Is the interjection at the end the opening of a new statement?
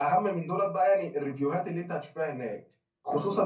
No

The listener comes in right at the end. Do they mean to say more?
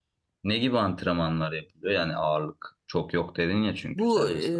Yes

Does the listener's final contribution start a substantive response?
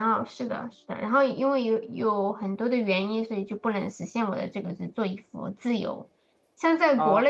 No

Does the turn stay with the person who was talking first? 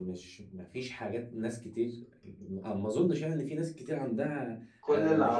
No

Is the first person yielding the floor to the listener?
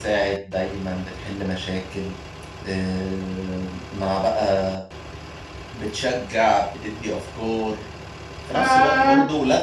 No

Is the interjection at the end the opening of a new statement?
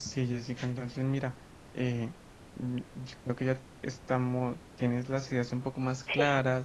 No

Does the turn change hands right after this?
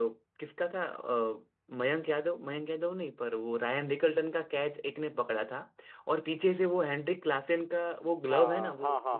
Yes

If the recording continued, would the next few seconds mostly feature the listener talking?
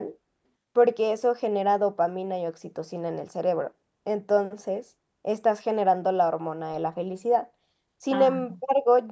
No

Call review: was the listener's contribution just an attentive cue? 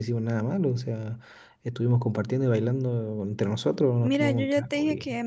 No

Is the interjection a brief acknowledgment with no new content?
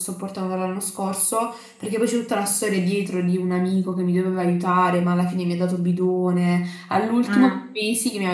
Yes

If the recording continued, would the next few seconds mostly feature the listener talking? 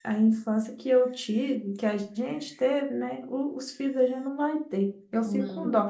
No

